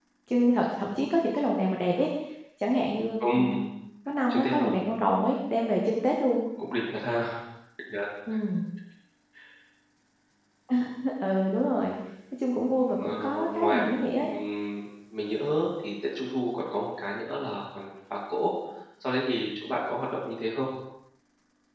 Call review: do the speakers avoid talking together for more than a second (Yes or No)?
No